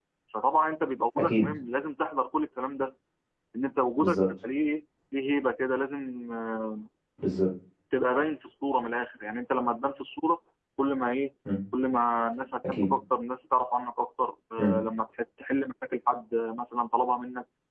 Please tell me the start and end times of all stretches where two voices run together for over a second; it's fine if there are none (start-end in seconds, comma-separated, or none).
none